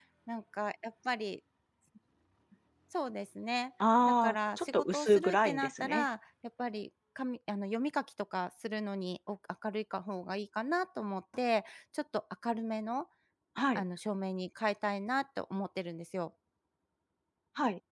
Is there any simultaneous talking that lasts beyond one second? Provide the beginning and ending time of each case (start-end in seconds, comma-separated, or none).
4.0-6.0